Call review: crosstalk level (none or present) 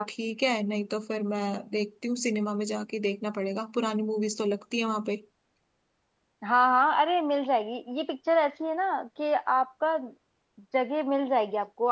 none